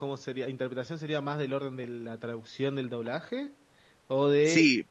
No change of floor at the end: No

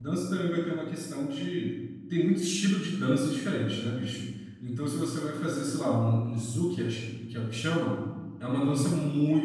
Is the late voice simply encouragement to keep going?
Yes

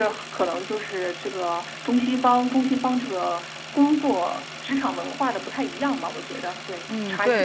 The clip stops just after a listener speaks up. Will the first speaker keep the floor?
No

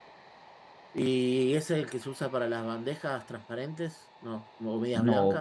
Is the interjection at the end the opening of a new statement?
Yes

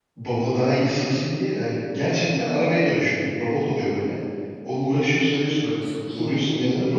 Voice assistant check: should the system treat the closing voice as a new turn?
No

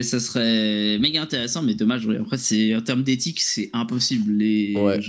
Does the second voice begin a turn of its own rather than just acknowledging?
Yes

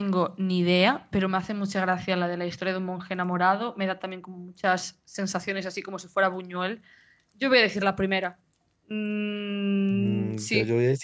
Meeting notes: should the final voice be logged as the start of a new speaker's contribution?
Yes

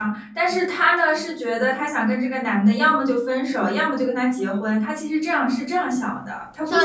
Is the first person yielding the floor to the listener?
Yes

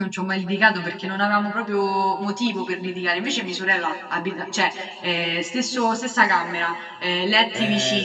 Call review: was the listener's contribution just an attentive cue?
No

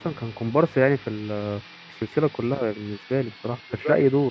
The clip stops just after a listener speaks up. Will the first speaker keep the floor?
No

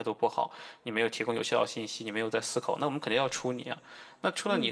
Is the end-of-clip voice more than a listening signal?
No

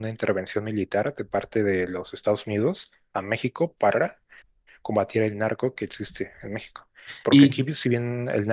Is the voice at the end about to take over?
No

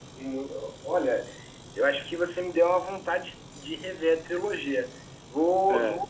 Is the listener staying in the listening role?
Yes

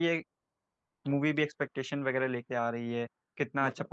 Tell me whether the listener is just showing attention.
Yes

